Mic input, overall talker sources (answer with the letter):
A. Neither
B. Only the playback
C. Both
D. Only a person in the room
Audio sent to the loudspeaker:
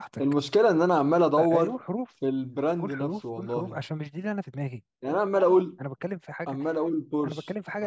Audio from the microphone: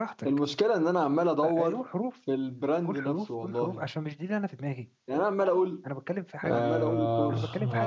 C